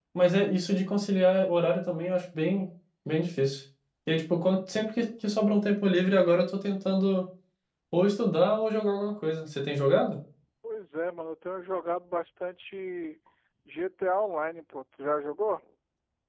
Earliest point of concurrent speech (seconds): none

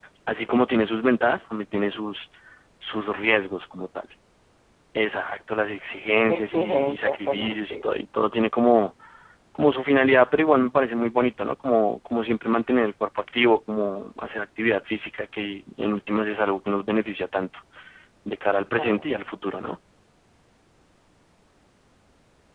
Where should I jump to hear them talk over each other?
6.2 s

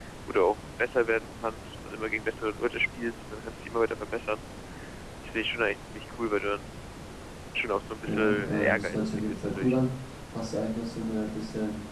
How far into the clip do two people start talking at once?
8.1 s

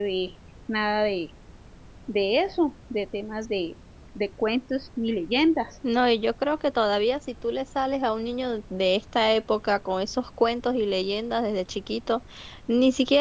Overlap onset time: none

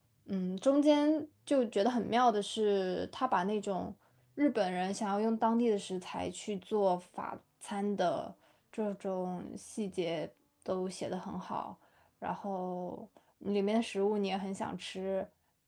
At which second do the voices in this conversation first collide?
none

